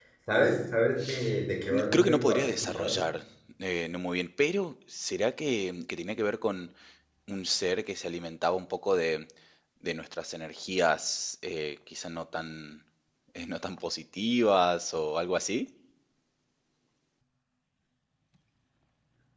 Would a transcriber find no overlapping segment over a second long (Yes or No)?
No